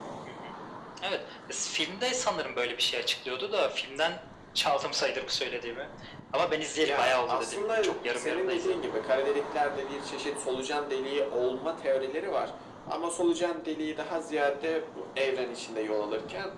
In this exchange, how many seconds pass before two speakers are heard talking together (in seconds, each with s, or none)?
6.8 s